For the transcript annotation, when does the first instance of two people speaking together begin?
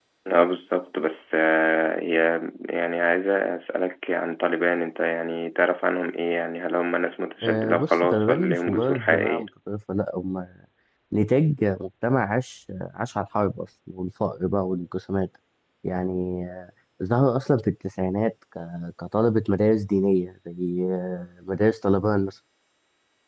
7.4 s

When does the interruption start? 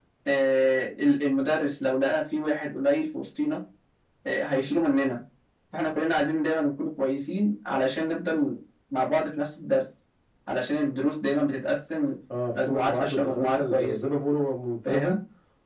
12.7 s

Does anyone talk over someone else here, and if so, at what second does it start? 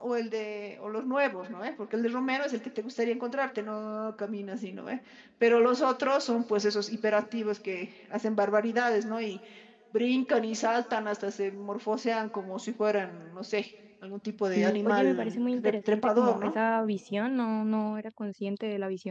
14.6 s

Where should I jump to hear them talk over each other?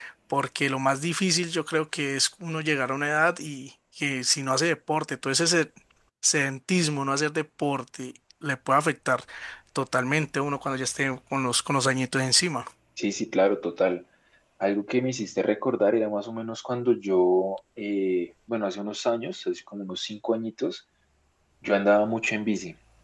none

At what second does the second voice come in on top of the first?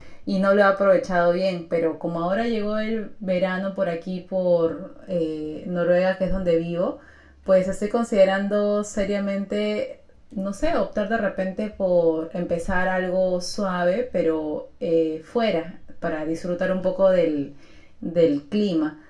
none

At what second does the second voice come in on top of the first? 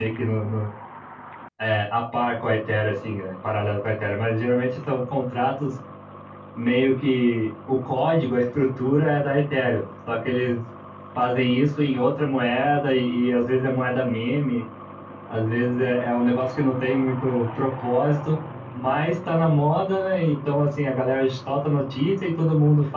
none

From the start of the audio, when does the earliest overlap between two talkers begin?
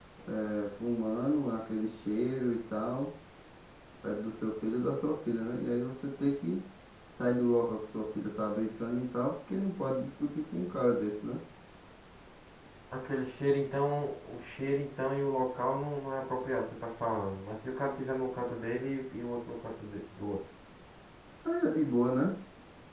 none

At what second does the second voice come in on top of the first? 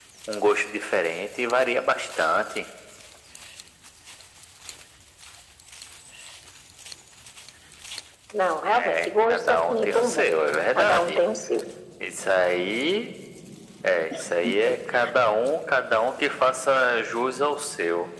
8.7 s

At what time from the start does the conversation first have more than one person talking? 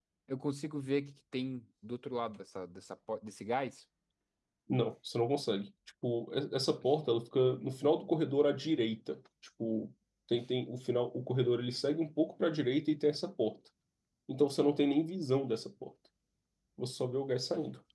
none

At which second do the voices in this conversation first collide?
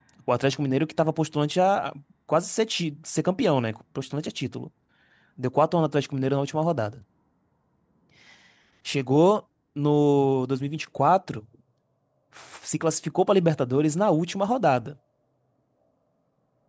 none

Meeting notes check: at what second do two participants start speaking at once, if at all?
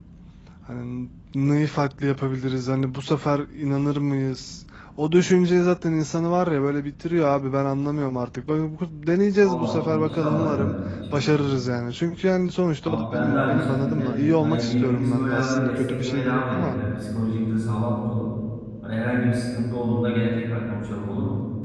9.4 s

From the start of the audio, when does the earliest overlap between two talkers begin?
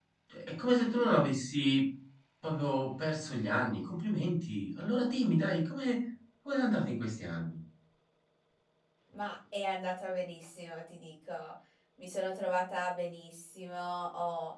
none

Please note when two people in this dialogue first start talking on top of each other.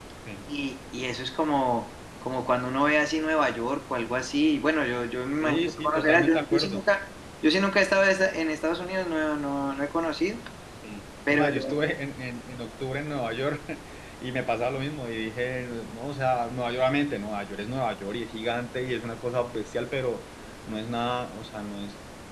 5.4 s

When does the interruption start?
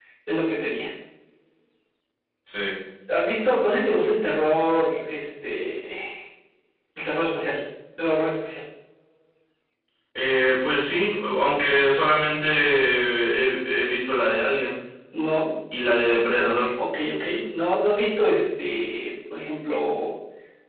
none

